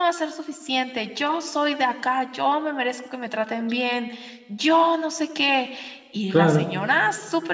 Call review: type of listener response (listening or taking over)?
listening